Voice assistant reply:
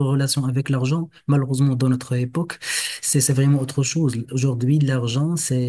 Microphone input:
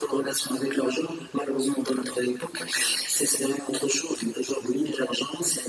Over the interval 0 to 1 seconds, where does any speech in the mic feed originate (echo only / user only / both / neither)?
echo only